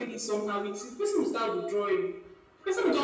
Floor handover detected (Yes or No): No